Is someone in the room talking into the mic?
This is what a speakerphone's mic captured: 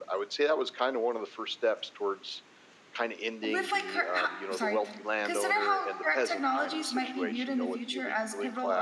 Yes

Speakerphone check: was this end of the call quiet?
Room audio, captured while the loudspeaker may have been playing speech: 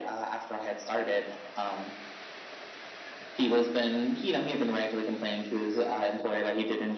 Yes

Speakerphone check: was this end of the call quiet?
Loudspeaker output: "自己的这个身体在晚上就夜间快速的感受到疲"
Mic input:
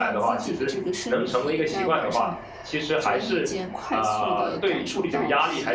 No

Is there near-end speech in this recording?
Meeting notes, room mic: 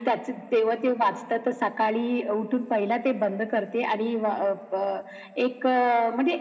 No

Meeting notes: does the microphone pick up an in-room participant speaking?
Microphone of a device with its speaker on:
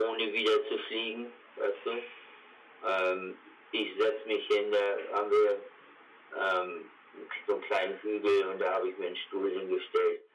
No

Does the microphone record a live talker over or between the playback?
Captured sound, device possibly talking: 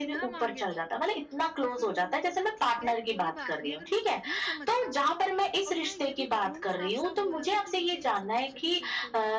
Yes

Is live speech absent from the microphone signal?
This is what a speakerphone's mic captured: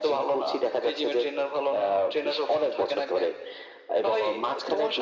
Yes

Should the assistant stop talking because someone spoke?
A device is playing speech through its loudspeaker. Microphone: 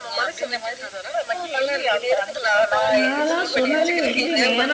Yes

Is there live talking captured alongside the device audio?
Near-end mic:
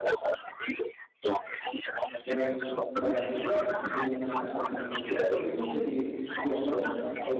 Yes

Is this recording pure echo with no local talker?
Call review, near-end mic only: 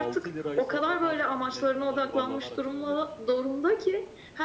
No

